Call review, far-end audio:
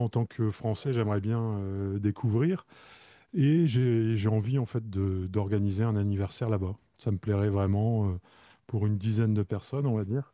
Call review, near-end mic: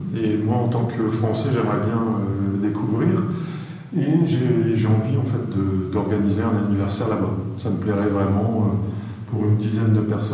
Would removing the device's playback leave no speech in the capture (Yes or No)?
Yes